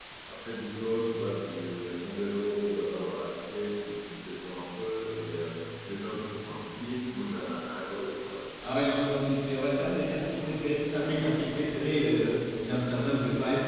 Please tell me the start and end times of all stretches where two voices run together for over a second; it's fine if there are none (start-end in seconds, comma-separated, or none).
none